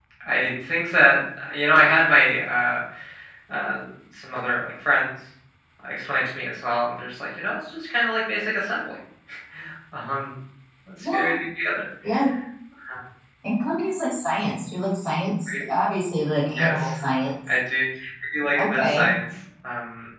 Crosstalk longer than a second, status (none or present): none